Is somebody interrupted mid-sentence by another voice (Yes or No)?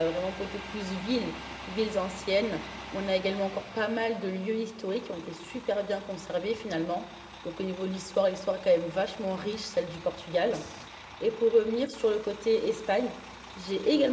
No